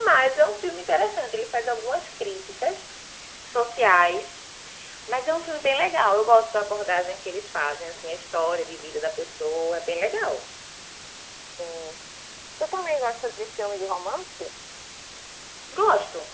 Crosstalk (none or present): none